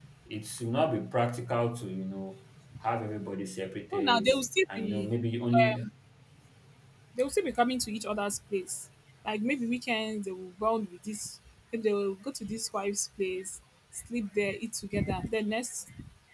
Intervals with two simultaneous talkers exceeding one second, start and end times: none

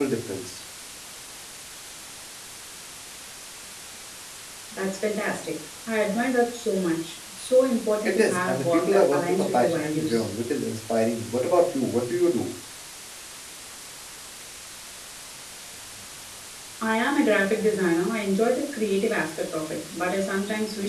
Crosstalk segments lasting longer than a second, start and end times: 8.1-10.3

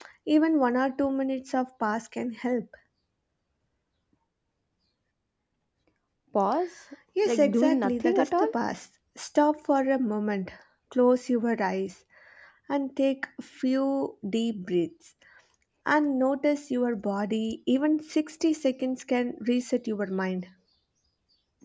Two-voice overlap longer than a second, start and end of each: 7.2-8.5

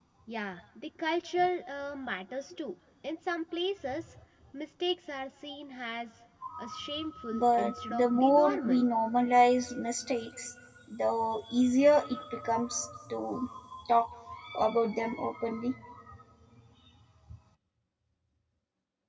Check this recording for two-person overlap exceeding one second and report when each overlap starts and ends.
7.3-8.8

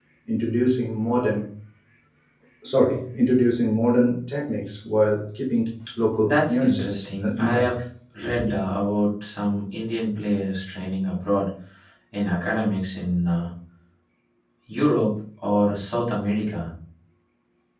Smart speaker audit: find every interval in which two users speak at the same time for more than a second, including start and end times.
6.2-7.7

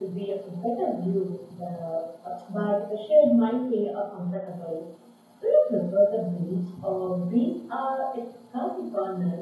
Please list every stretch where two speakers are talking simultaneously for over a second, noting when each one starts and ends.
none

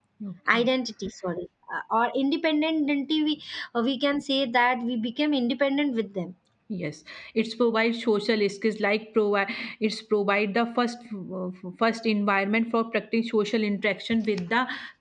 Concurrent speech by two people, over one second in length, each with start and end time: none

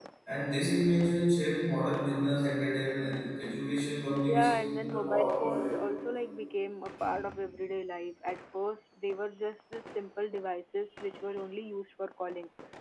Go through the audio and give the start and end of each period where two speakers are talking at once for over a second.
4.3-5.7

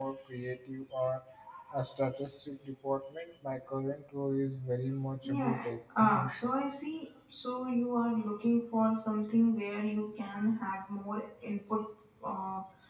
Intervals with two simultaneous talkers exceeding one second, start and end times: 5.2-6.5

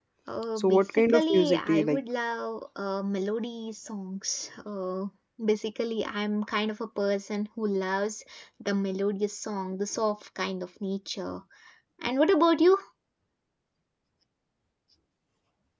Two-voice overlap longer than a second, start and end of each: 0.6-2.0

